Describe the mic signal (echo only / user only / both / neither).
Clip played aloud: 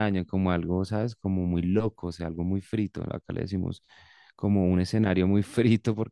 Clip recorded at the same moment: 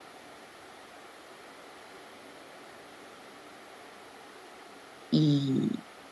user only